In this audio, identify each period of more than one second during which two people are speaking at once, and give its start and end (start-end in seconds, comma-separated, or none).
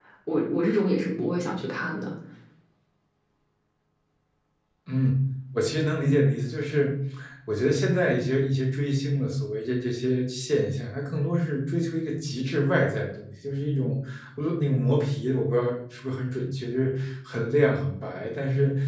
none